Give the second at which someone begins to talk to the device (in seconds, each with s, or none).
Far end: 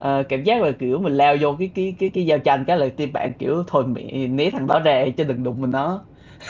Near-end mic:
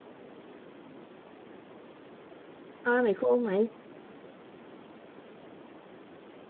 2.8 s